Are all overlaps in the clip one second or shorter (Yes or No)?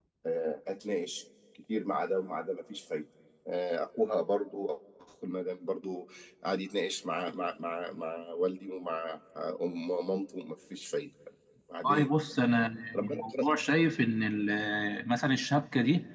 Yes